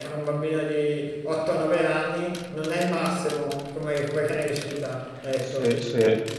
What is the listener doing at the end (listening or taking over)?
taking over